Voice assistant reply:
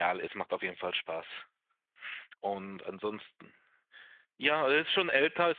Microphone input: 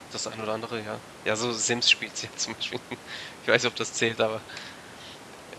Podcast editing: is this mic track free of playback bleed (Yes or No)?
Yes